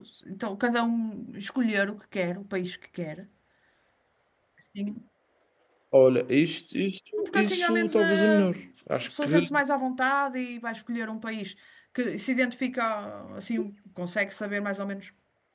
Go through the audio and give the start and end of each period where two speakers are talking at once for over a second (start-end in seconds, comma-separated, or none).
7.2-8.4